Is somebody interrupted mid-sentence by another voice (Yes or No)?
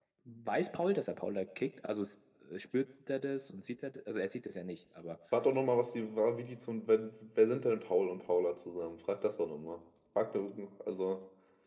No